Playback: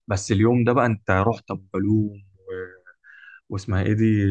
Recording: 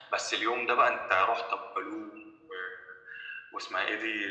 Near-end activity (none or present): none